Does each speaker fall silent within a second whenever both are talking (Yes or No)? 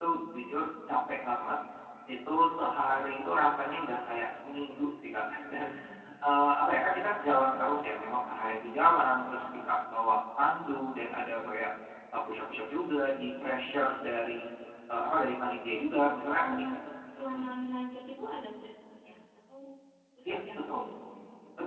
Yes